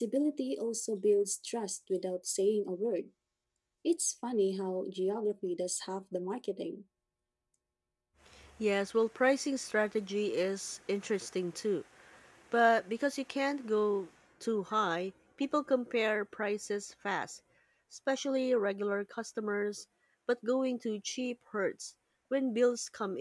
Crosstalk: none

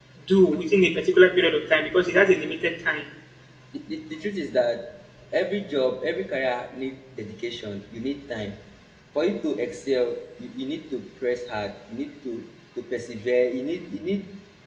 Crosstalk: none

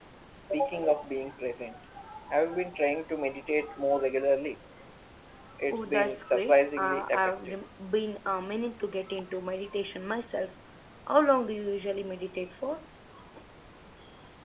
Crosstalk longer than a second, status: present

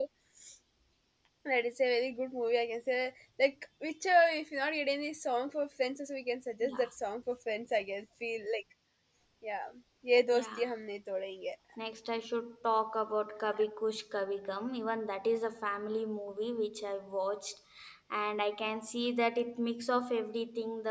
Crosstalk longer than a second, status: none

